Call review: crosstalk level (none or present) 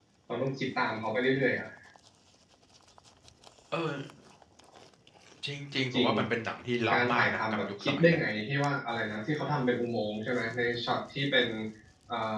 present